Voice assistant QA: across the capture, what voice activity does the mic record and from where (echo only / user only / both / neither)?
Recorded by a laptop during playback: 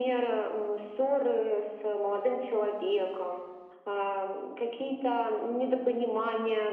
echo only